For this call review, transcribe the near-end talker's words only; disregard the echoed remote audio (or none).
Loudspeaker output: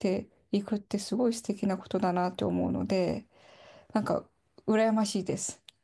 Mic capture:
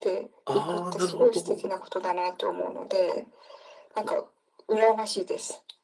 ああ、なるほど。